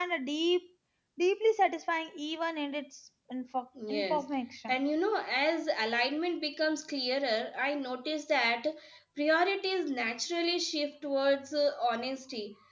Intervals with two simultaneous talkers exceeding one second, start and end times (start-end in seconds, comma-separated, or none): none